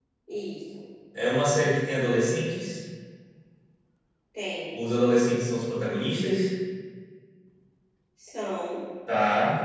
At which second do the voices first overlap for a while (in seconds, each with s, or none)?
none